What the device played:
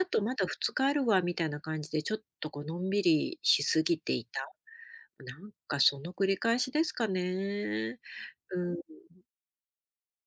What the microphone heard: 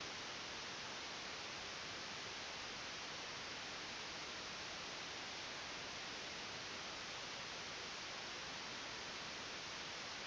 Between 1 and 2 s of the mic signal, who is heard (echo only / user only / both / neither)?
neither